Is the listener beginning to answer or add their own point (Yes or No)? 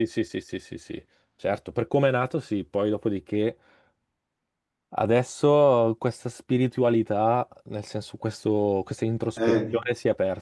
No